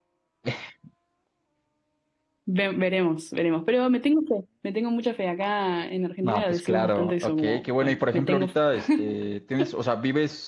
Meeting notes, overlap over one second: present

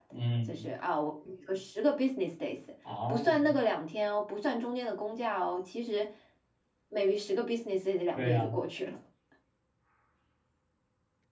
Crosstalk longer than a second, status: none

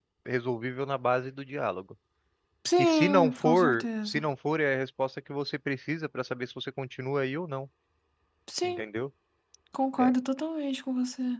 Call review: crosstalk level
present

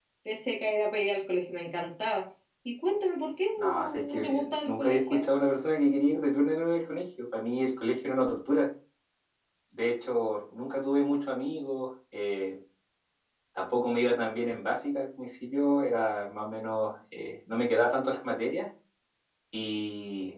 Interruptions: present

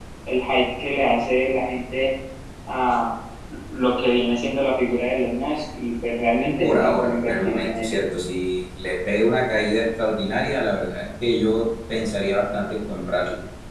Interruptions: present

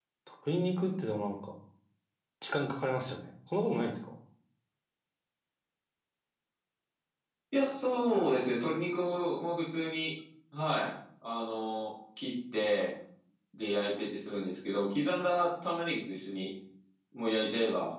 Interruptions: none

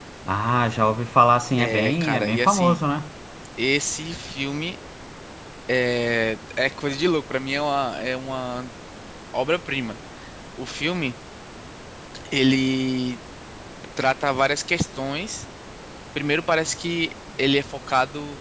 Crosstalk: present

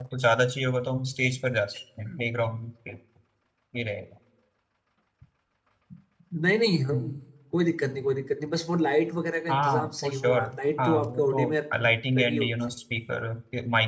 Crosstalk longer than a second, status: present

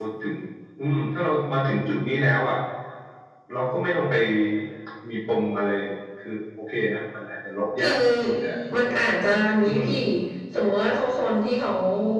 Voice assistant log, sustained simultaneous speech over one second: none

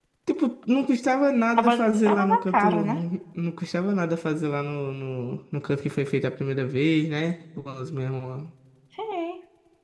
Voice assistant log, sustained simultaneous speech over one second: present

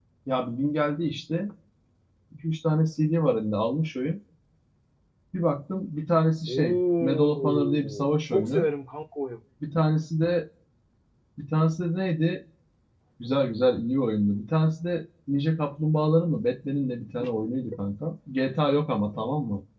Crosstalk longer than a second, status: present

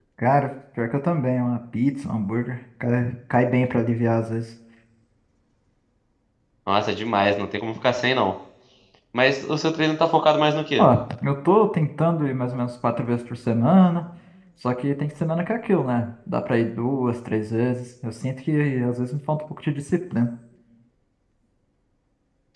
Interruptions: none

